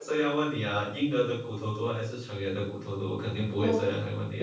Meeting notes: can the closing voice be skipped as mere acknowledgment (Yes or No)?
No